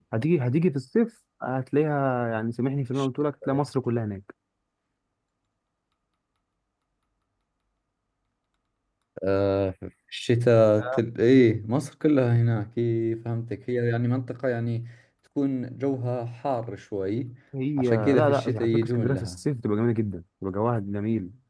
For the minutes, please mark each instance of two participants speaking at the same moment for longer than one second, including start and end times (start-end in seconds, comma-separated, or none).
17.8-19.4